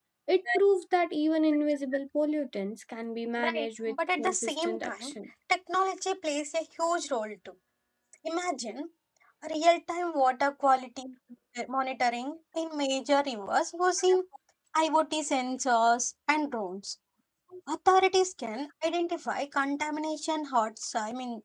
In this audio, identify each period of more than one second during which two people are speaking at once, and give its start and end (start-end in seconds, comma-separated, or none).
3.4-5.1